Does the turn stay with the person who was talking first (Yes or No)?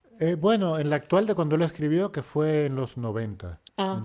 Yes